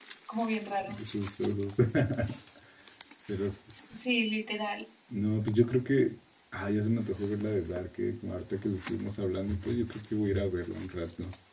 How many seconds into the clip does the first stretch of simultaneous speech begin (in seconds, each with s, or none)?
none